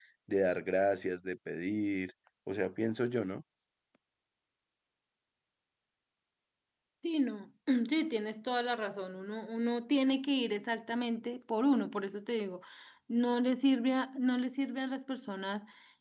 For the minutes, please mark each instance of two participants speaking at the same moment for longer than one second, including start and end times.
none

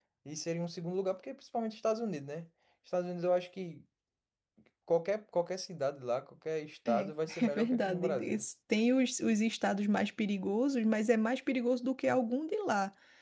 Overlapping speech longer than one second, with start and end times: 6.9-8.4

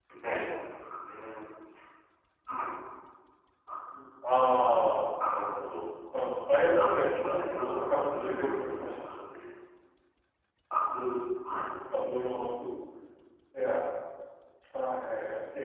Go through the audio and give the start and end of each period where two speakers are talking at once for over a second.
6.8-8.9

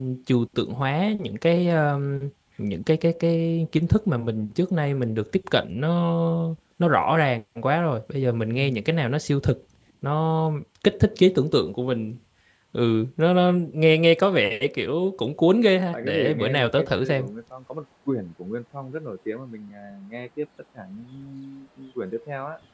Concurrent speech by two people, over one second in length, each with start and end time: 15.9-17.3

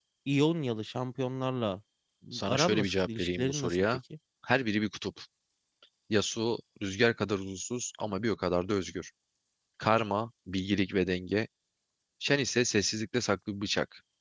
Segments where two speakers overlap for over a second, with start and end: 2.5-3.9

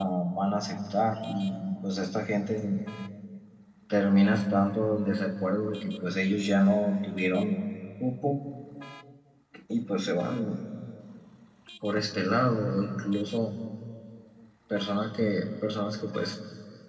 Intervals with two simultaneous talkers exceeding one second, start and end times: none

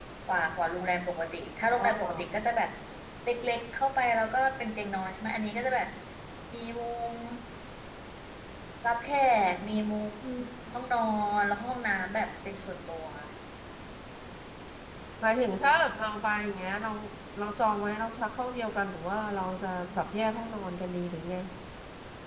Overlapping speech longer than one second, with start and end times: none

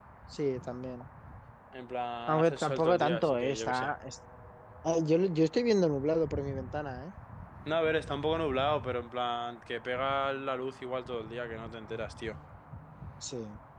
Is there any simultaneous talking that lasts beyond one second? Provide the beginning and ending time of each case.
2.3-3.9

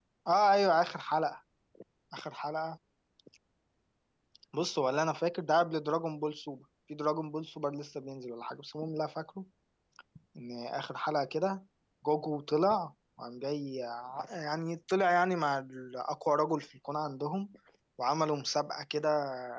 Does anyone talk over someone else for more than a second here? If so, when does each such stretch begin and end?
none

